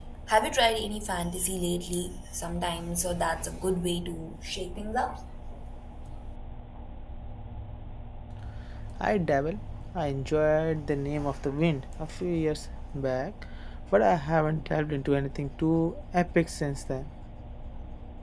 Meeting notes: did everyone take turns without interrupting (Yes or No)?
Yes